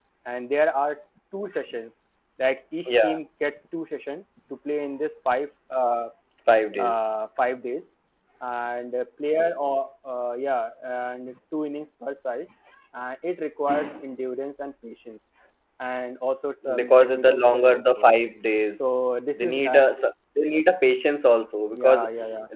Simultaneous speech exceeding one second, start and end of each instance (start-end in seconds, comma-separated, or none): 16.8-18.1